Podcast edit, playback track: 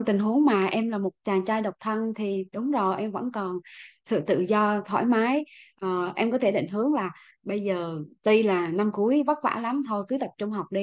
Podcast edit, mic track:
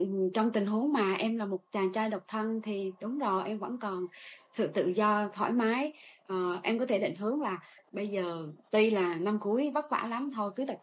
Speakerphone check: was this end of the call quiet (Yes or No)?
Yes